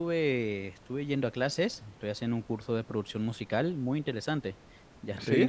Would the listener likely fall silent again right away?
Yes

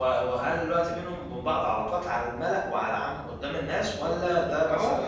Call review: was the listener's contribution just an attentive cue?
No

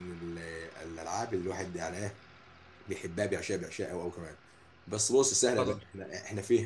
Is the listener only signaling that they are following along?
Yes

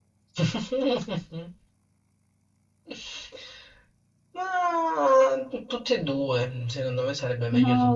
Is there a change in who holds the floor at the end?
Yes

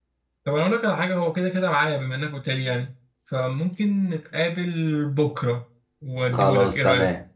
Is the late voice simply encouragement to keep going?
No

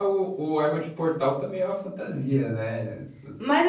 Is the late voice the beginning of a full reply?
Yes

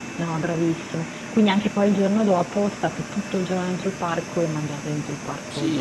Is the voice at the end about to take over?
Yes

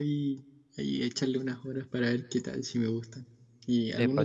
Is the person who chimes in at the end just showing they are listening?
No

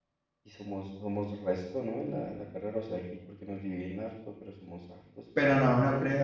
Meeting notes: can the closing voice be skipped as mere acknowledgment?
No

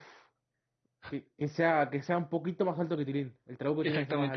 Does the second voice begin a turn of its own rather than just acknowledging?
Yes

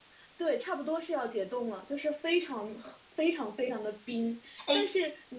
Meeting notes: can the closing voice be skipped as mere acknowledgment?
Yes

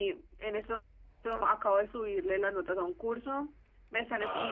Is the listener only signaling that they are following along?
Yes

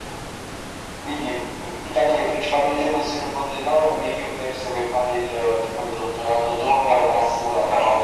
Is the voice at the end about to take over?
No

